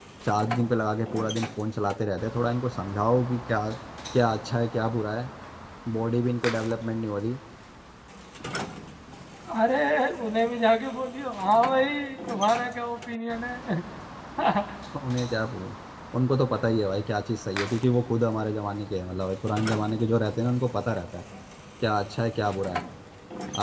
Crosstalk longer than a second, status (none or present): none